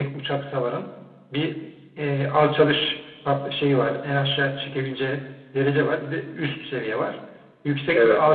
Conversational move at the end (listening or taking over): listening